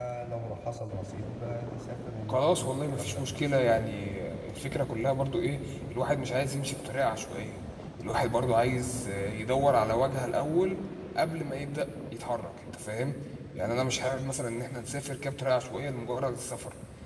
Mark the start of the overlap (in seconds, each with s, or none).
2.3 s